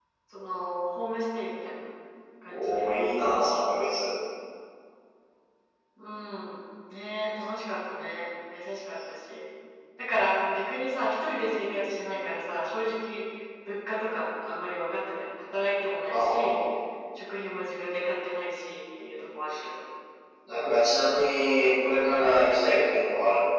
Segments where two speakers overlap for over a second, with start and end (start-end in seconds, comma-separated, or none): none